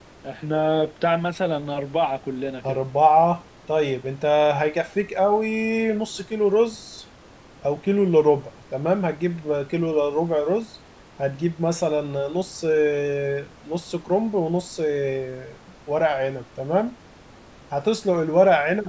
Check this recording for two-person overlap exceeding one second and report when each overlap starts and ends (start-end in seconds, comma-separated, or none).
none